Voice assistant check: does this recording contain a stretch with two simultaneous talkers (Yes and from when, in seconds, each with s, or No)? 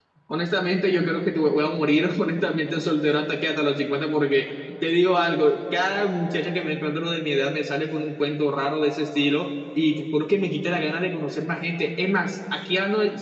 No